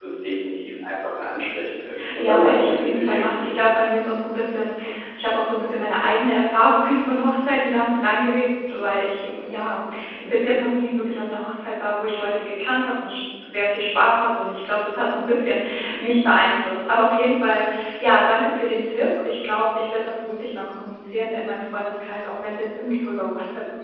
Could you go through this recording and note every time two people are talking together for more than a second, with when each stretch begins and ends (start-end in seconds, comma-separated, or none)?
2.1-3.5